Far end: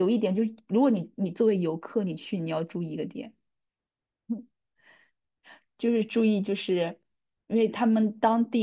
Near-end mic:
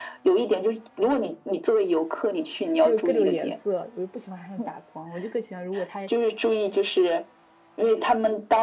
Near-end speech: present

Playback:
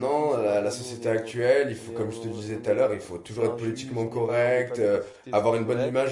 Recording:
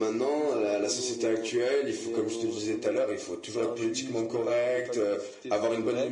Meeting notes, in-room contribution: none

